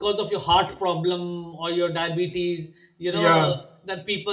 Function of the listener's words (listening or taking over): listening